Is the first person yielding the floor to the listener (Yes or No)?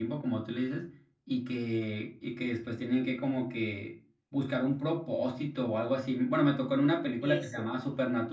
No